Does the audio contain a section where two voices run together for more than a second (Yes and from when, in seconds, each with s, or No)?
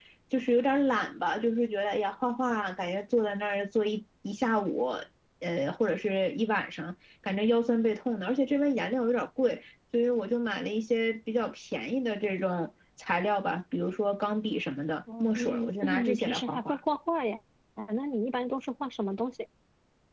Yes, from 15.1 s